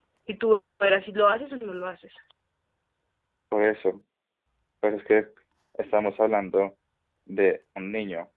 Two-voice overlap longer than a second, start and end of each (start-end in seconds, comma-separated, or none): none